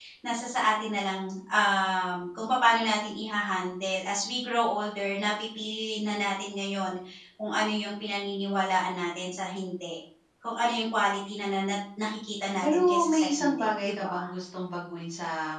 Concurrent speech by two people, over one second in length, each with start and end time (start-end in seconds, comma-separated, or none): 12.6-14.2